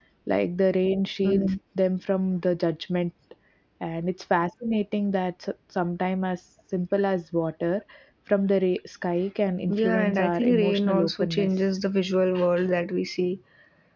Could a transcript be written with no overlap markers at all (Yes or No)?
No